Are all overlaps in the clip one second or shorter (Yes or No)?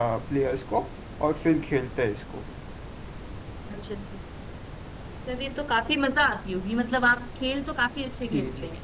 Yes